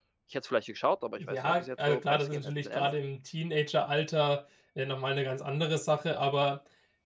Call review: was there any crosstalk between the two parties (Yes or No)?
Yes